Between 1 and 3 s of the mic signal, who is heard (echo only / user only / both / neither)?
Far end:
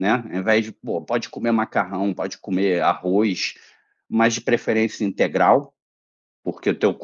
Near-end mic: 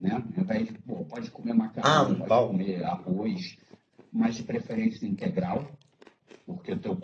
both